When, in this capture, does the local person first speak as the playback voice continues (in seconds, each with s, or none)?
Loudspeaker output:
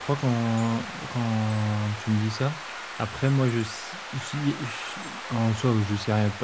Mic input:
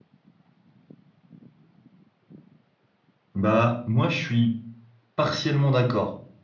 3.3 s